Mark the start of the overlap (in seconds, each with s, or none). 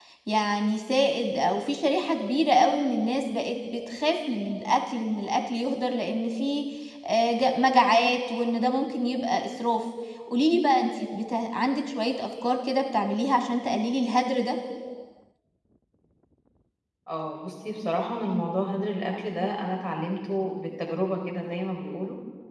none